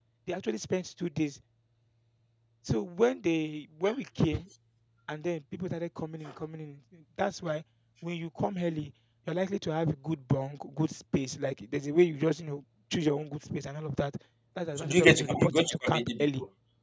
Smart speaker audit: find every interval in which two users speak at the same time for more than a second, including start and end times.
14.8-16.2

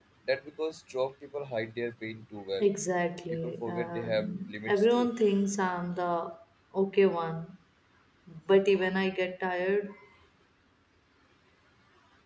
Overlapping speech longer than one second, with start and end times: 3.3-5.1

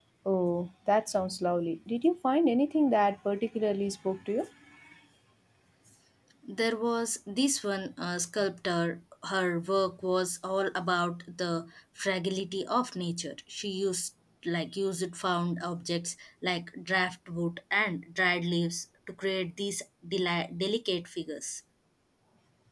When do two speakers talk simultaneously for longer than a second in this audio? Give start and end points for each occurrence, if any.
none

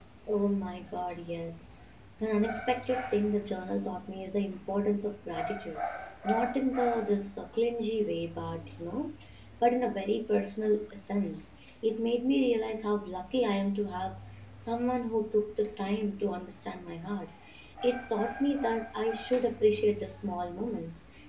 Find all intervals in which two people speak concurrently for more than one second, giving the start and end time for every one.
none

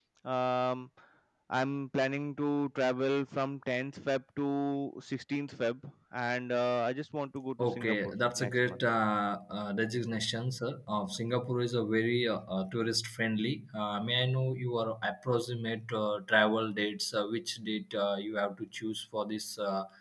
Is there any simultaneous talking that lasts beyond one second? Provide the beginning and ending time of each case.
7.6-8.8

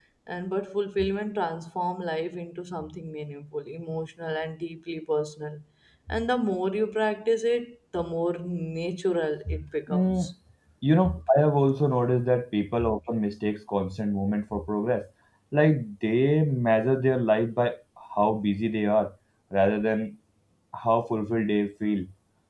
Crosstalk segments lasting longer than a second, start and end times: none

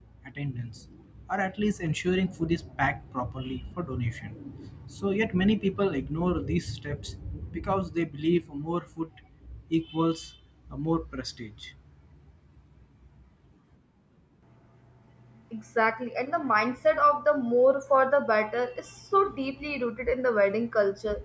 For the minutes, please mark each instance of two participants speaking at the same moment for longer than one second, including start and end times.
none

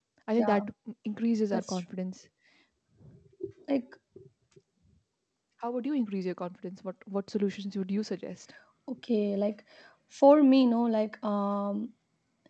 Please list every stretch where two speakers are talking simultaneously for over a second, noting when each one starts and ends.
none

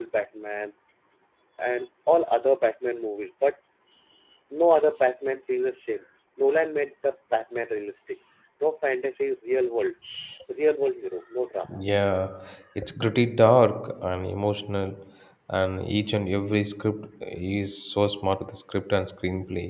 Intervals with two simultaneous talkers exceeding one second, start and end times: none

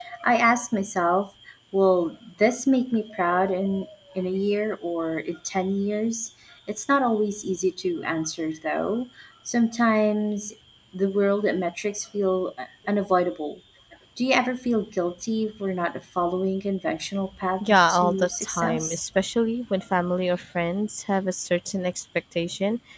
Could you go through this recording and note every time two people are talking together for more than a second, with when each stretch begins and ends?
17.6-19.0

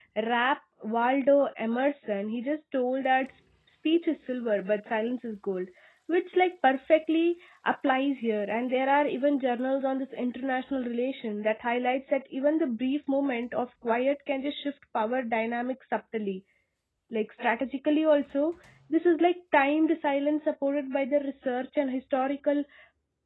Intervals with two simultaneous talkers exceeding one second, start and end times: none

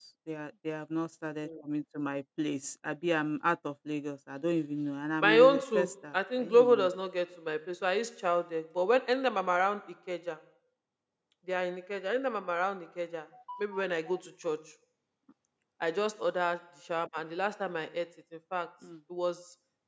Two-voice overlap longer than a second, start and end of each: 5.2-6.9

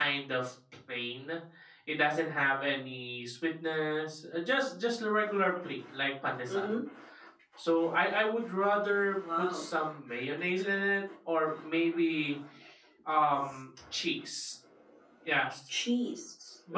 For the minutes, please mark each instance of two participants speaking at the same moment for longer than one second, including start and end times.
none

